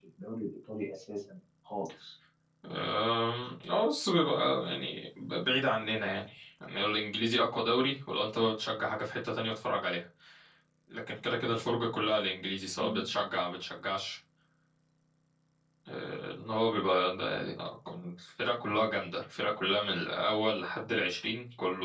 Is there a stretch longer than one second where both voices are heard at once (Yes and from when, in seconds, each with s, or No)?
No